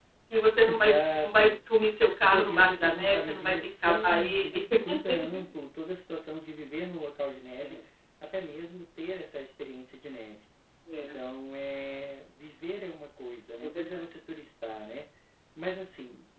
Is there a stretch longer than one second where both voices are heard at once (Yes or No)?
Yes